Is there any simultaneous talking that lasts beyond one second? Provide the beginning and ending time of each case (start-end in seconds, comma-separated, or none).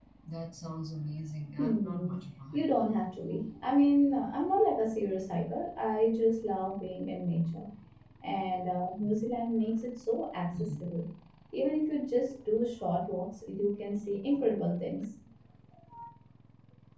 none